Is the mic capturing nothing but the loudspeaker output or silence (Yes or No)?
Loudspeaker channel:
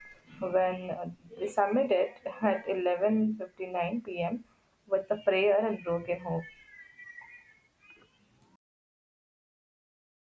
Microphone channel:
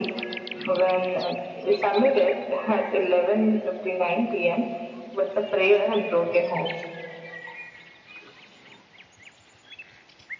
Yes